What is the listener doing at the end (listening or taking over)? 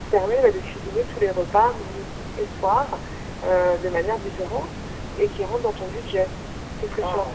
taking over